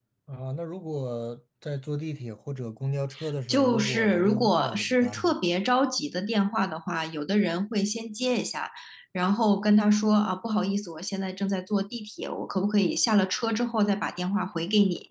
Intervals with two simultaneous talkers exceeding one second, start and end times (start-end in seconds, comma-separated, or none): 3.5-5.3